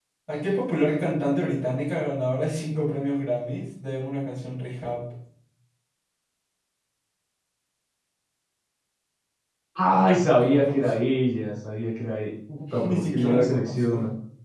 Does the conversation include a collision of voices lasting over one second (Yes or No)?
Yes